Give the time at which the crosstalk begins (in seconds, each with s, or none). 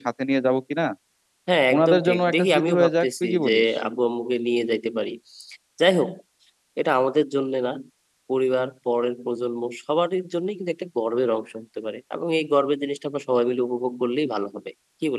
1.7 s